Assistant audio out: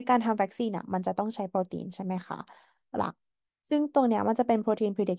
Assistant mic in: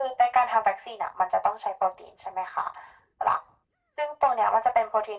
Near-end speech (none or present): none